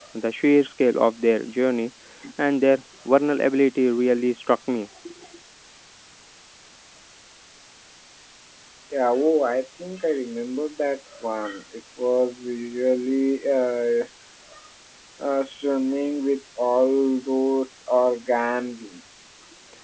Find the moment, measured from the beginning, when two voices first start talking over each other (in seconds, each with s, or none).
none